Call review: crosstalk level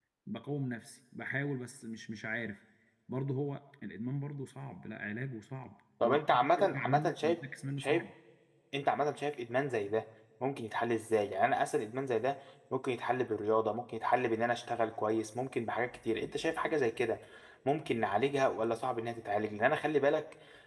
present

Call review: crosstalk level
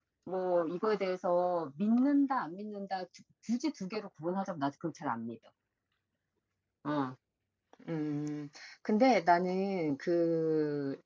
none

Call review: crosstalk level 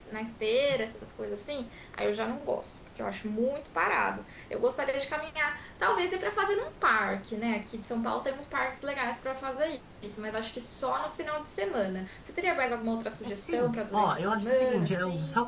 present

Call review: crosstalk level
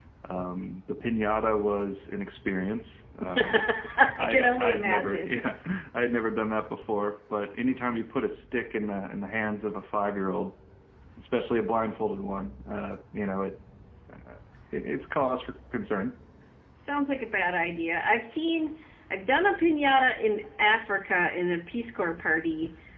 present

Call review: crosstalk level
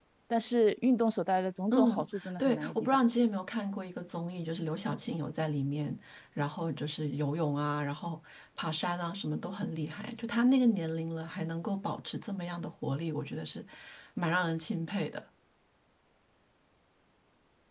present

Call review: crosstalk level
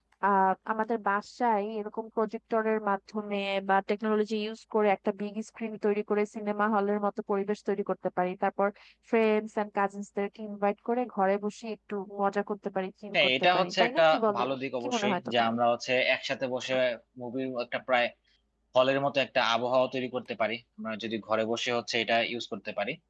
present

